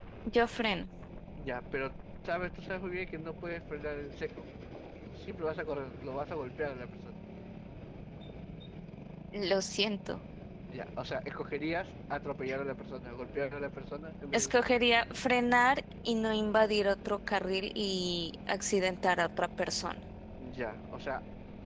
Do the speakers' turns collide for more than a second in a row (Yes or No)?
No